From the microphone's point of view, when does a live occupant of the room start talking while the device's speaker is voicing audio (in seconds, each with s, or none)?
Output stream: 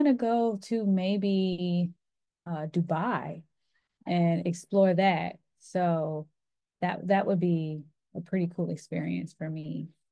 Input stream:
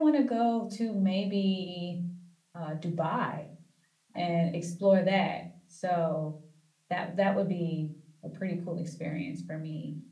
none